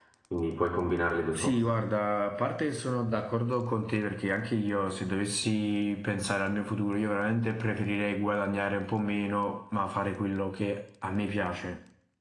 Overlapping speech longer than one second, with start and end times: none

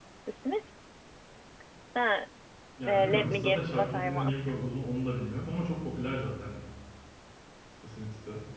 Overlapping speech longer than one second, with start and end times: 2.9-4.4

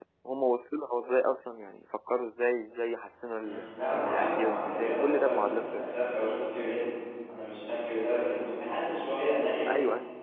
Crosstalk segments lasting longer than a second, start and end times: 4.1-5.9

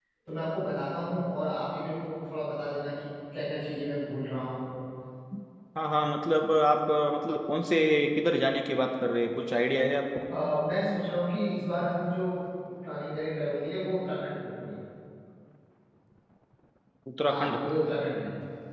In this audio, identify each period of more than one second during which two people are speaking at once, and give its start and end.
none

